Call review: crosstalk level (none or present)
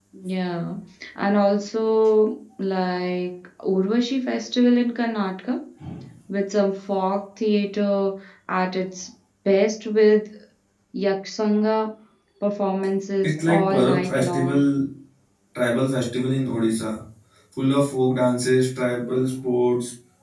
present